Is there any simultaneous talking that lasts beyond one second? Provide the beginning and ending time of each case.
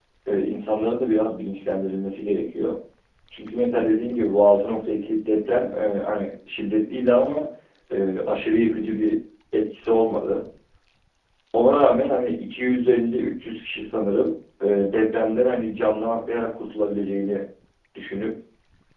none

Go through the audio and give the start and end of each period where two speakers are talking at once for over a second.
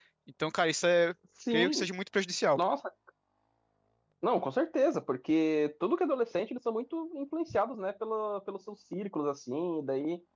none

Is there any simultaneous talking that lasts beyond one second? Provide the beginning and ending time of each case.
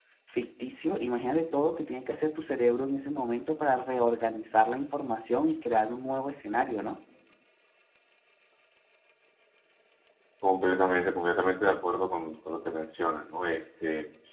none

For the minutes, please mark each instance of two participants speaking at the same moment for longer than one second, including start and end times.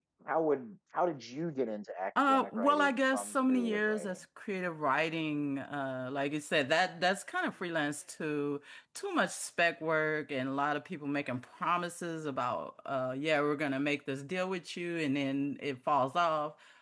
2.3-4.2

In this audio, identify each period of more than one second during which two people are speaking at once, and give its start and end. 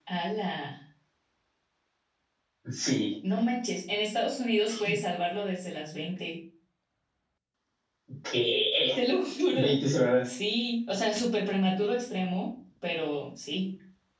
none

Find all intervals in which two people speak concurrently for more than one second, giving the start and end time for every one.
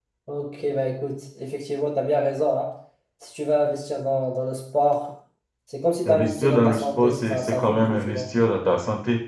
6.0-8.3

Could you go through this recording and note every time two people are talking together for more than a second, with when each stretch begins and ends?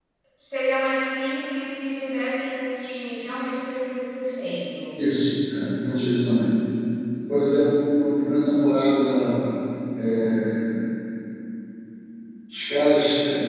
none

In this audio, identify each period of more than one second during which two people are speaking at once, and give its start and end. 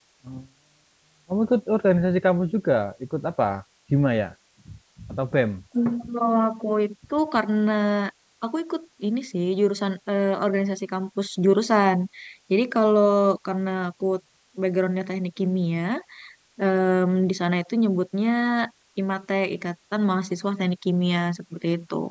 none

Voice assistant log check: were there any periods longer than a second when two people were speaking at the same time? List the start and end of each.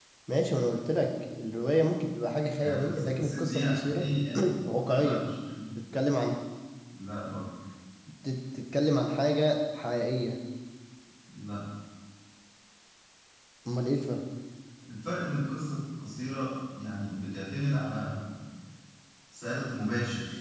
2.6-4.0

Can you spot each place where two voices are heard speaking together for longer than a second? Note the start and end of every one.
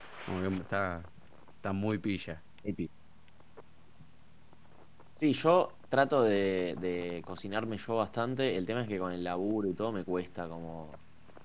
none

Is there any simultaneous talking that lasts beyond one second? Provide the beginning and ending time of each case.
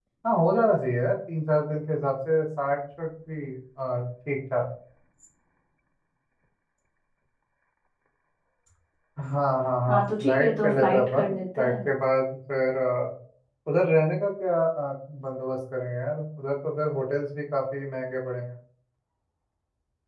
9.9-11.8

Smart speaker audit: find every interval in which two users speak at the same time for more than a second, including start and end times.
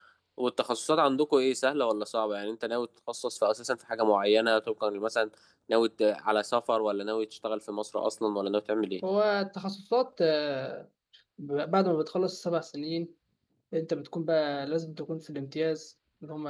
none

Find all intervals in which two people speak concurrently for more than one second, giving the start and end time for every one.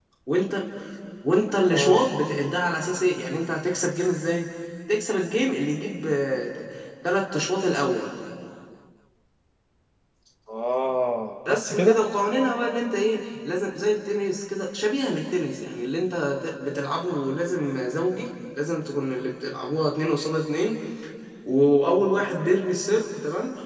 none

